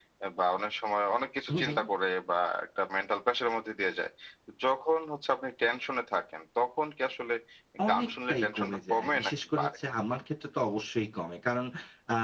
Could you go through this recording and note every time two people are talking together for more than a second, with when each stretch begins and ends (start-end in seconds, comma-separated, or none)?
7.9-9.8